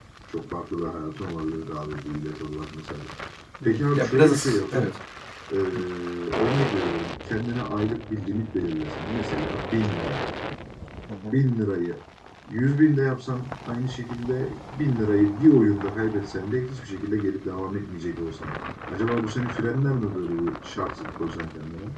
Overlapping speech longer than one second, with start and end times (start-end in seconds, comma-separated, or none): 3.6-4.9